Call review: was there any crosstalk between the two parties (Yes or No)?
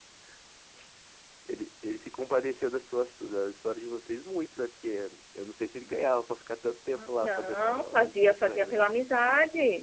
Yes